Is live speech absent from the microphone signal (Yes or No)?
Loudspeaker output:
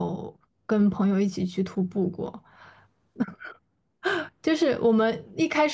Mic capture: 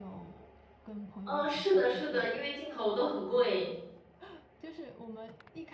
No